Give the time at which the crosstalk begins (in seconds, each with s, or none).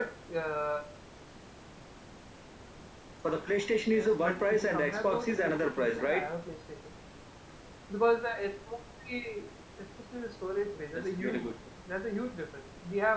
3.9 s